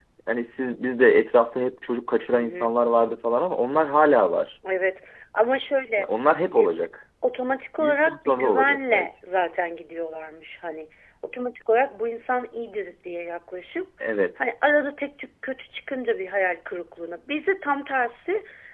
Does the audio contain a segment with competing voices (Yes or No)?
Yes